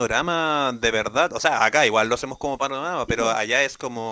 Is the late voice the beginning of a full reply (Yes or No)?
No